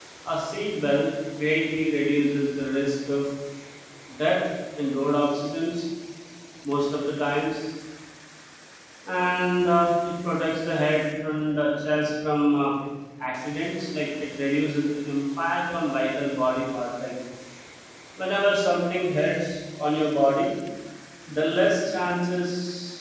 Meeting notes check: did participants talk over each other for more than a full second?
No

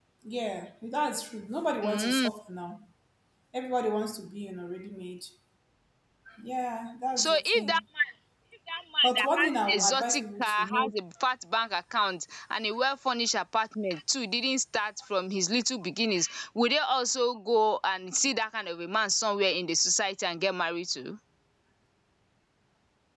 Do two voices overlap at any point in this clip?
Yes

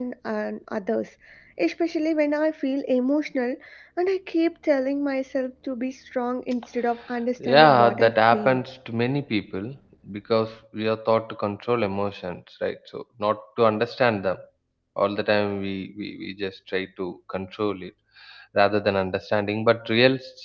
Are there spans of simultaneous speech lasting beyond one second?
Yes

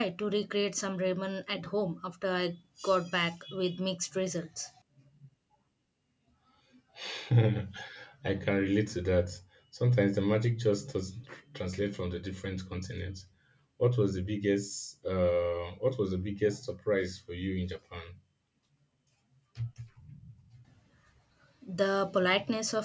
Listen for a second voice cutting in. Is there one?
No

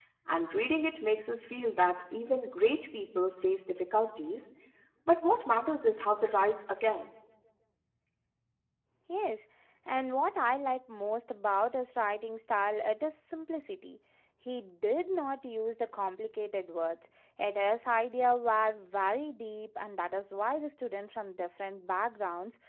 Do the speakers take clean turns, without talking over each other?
Yes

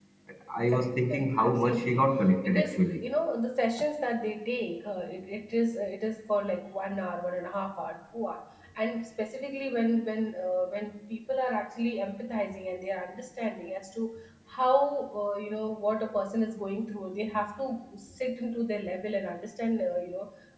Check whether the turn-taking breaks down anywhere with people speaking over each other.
Yes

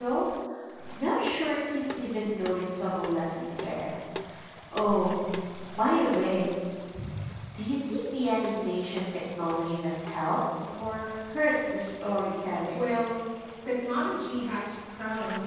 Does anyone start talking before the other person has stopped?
No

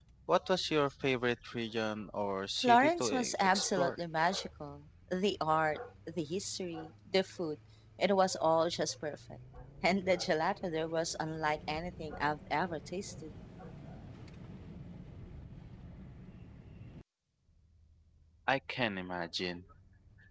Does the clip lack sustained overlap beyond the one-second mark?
No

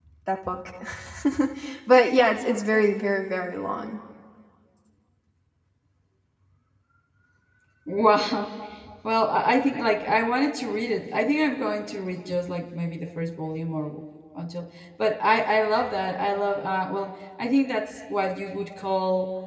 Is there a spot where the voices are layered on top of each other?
No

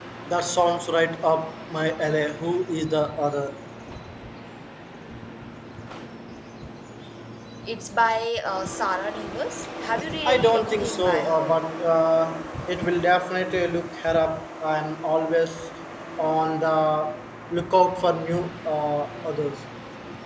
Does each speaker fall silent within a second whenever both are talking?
No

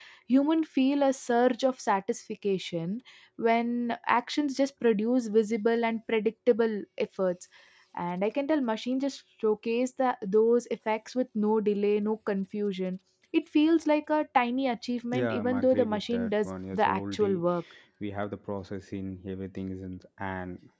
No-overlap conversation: No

